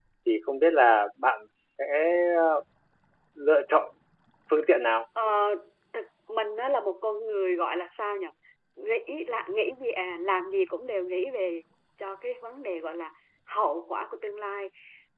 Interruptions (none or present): none